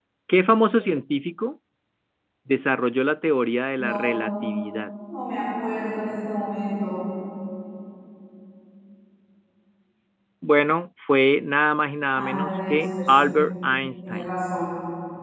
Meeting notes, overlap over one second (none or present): present